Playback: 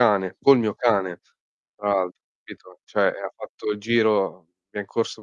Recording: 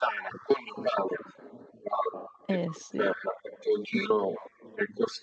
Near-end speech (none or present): present